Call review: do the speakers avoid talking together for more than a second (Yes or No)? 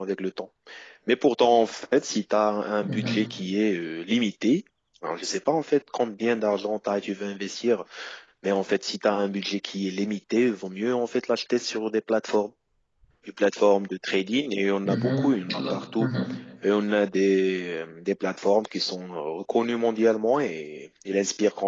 No